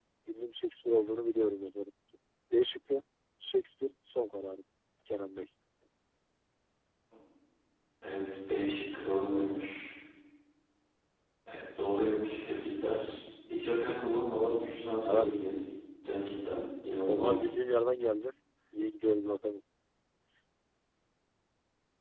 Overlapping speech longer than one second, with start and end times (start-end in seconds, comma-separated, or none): none